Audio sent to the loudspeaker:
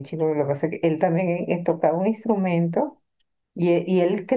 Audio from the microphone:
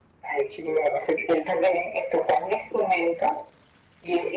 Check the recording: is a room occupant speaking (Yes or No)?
No